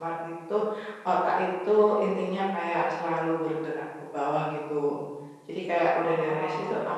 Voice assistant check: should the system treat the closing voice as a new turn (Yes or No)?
No